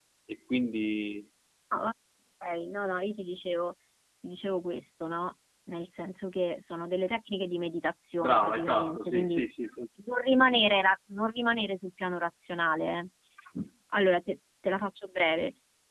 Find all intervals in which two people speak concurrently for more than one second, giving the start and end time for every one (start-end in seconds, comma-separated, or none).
8.2-9.4